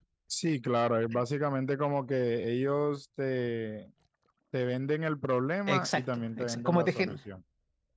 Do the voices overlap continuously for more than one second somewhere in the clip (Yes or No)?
Yes